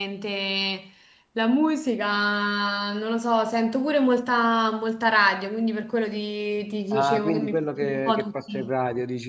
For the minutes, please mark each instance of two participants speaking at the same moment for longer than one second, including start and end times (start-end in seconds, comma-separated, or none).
6.9-8.7